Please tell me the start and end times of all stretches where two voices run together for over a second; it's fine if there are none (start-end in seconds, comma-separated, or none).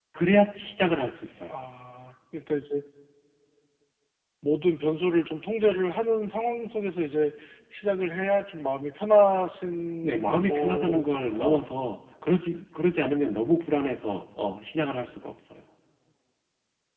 10.0-11.6